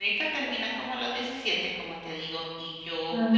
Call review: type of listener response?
listening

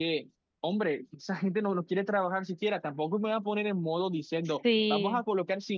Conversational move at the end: listening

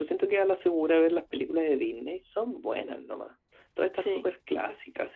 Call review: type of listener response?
listening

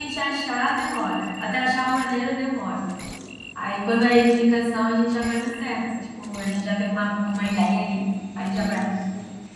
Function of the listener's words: taking over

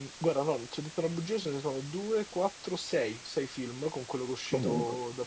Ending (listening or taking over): listening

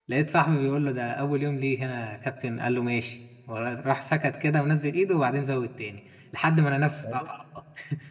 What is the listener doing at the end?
listening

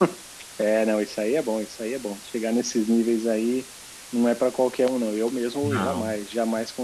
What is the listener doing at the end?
listening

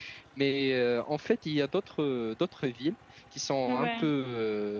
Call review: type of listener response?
listening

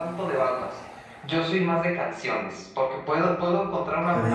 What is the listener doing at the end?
listening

